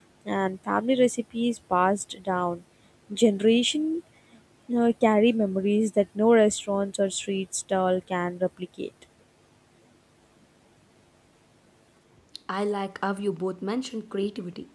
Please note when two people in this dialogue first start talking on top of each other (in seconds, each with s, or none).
none